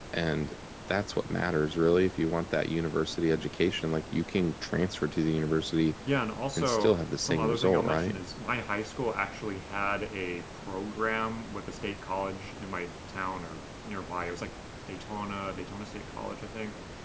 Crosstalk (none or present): present